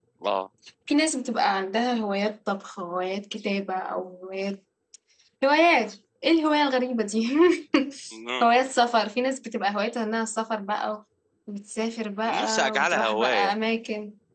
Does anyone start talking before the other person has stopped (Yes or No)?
Yes